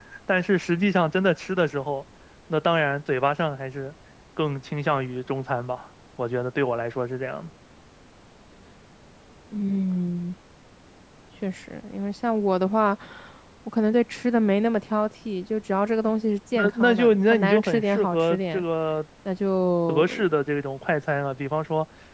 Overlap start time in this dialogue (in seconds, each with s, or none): 16.5 s